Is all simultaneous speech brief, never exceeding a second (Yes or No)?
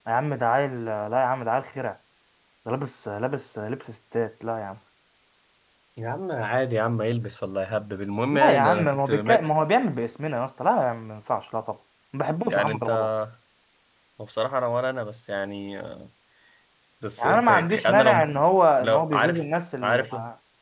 No